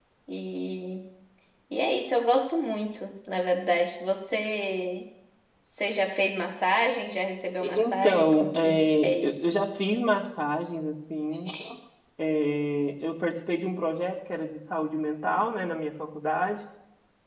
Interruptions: present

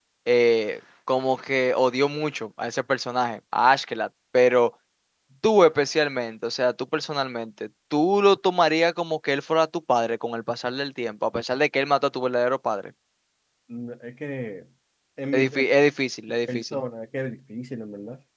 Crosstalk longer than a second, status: none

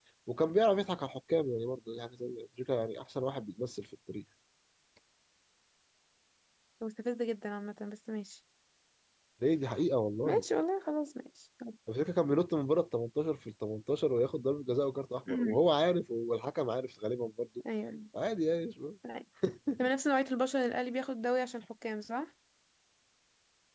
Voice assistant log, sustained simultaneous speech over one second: none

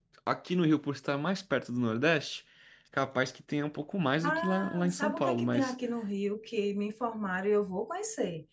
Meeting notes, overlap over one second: present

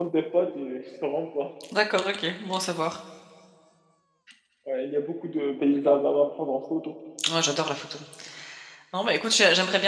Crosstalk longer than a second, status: none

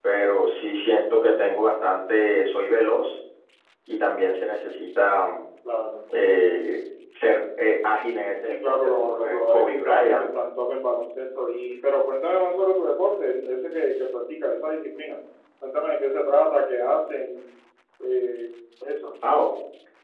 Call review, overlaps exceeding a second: present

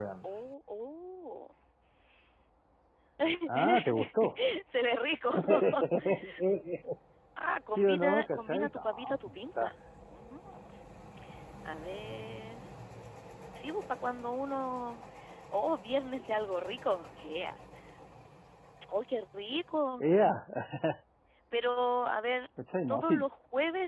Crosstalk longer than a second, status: present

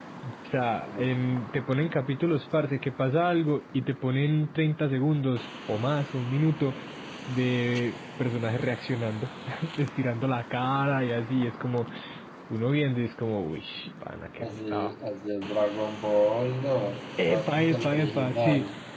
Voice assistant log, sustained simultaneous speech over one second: present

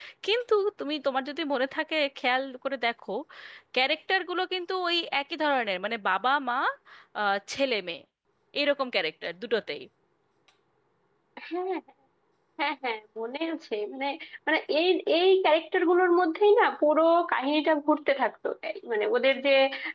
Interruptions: none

